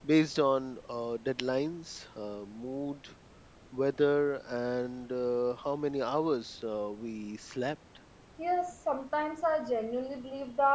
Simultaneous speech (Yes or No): No